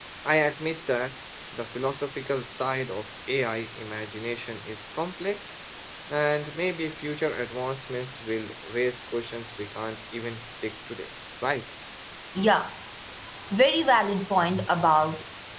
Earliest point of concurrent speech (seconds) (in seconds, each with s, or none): none